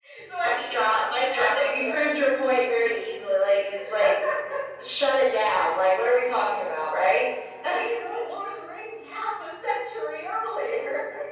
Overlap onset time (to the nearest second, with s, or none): 1 s